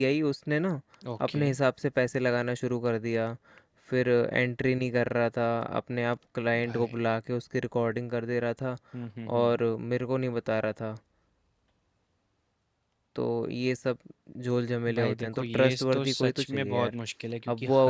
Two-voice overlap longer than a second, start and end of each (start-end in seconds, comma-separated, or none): 15.0-16.9